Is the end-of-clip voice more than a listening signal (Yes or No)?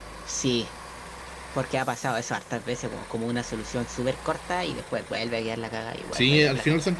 Yes